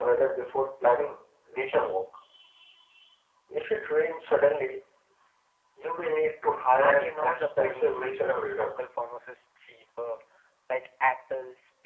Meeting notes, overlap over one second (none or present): present